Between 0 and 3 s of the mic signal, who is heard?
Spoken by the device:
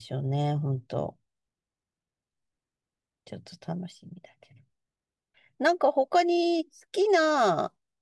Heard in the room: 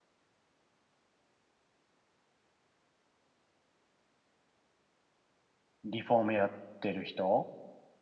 neither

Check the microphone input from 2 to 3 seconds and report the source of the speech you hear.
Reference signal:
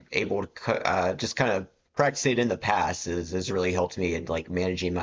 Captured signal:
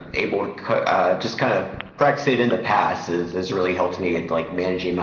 echo only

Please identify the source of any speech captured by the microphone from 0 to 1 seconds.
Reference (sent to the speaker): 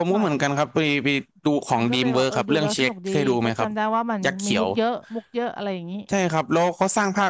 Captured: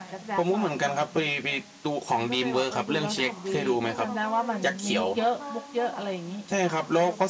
both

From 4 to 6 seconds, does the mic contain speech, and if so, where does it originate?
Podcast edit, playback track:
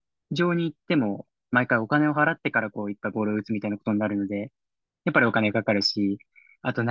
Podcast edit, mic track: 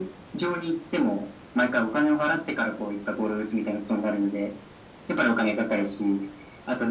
echo only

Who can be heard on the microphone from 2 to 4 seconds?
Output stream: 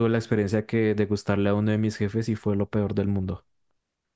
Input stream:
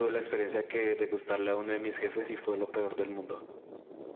echo only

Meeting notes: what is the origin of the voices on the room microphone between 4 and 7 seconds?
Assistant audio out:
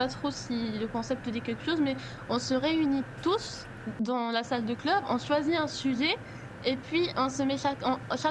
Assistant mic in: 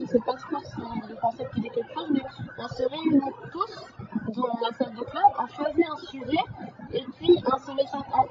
echo only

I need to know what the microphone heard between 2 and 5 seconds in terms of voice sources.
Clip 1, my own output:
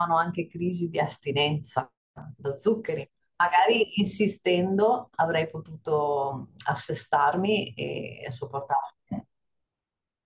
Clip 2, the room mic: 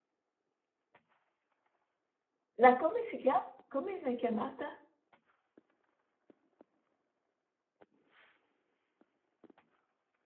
user only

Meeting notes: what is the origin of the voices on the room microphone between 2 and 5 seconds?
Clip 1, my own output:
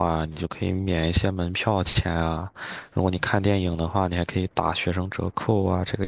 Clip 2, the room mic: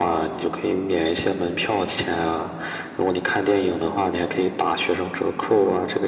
echo only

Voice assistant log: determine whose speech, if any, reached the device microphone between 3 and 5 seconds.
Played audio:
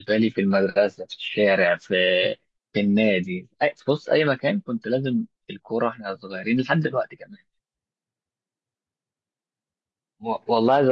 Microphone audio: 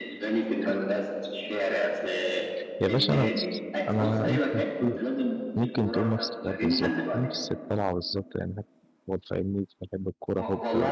both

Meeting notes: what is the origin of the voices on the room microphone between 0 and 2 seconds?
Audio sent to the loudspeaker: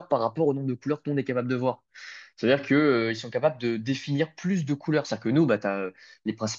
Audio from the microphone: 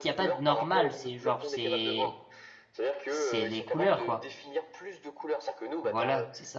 both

